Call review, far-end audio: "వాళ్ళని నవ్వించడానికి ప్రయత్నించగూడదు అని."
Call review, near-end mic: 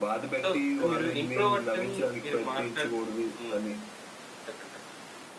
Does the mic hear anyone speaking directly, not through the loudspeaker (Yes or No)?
Yes